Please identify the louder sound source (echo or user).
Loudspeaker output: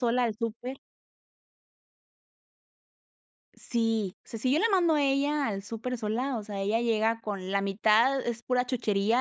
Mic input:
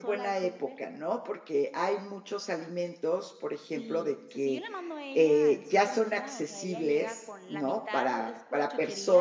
user